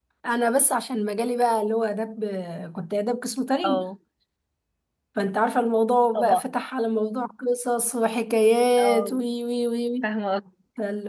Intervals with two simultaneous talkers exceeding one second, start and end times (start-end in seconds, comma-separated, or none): none